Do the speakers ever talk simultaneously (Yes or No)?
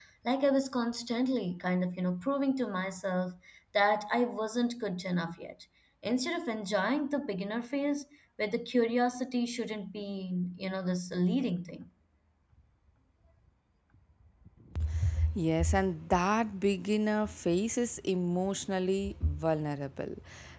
No